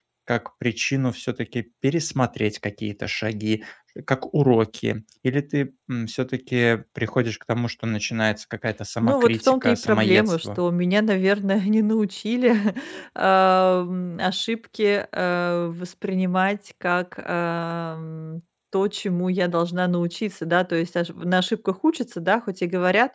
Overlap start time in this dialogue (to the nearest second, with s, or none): 9 s